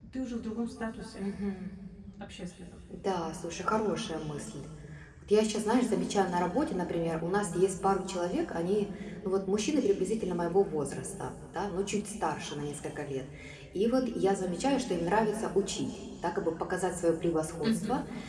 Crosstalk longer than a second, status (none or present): none